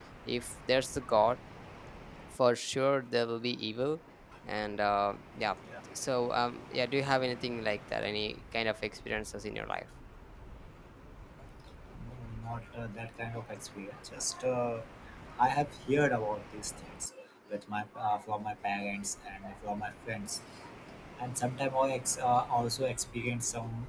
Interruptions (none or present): none